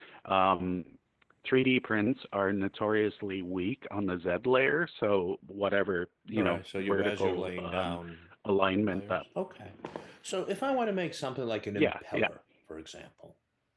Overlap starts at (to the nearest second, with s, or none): 6 s